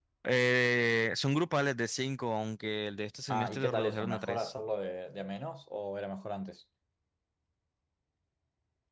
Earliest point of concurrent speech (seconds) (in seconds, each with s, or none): 3.3 s